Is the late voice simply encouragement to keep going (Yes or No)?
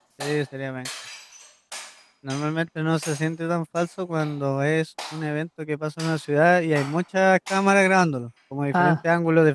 Yes